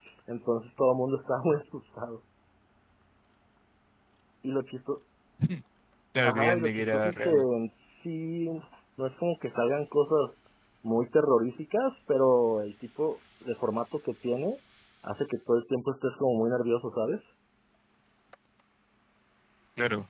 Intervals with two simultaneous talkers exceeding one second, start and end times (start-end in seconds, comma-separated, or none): 6.2-7.5